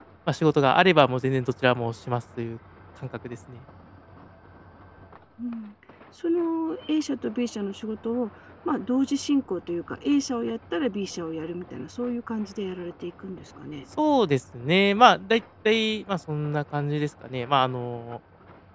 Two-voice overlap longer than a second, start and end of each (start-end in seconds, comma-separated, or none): none